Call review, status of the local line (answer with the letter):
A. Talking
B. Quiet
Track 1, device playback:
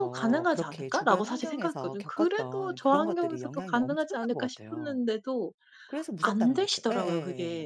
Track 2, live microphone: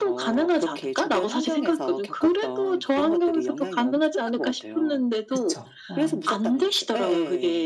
A